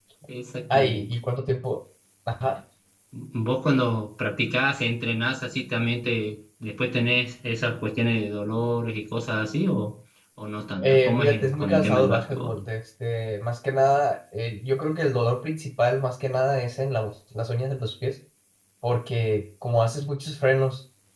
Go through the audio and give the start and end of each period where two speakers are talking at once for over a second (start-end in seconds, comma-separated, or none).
10.8-12.5